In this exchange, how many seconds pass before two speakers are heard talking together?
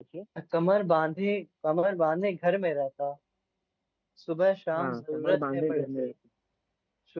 4.7 s

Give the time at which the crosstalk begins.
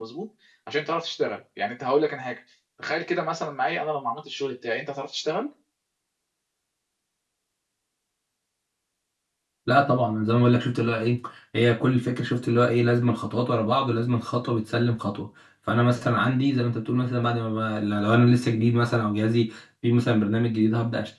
none

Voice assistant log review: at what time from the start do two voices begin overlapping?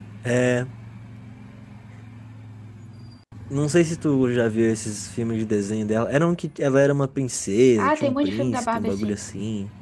7.8 s

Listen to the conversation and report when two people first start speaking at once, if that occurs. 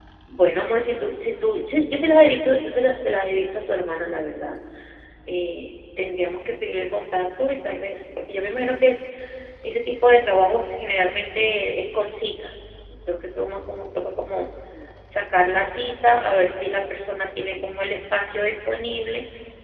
none

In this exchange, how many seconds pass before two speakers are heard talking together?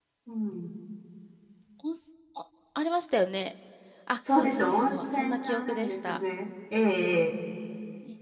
4.3 s

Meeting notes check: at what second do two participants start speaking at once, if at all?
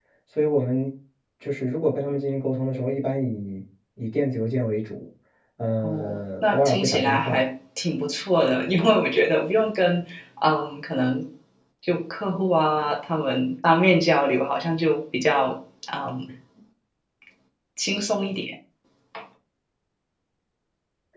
5.8 s

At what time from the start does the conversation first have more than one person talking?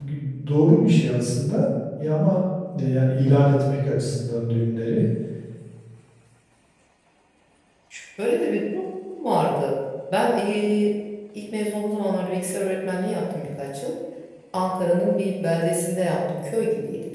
none

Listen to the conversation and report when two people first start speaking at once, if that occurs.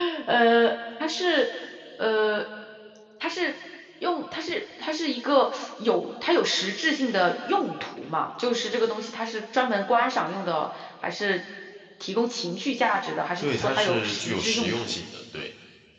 13.4 s

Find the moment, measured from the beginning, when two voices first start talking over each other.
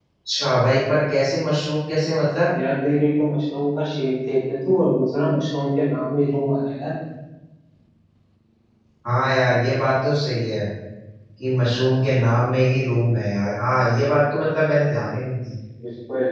none

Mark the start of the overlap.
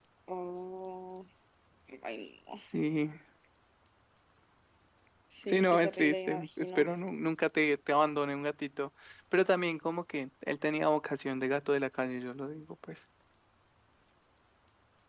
5.5 s

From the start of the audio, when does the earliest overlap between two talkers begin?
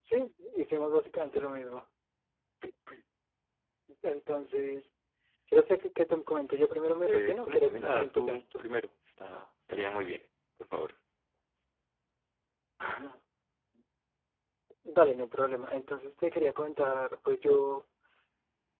7.1 s

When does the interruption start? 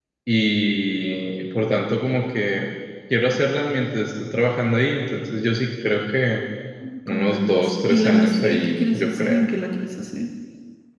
7.1 s

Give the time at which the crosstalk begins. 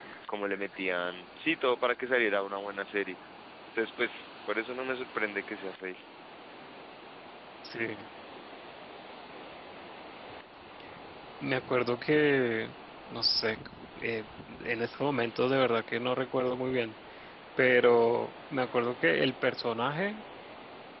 none

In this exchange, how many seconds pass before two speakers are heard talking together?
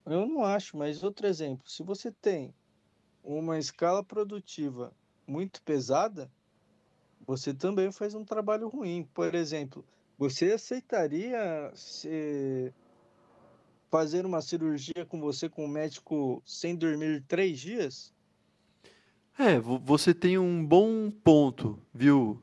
none

